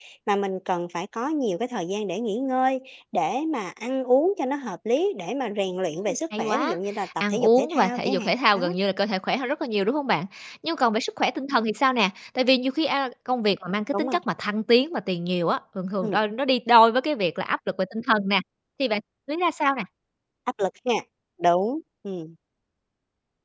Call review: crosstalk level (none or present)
present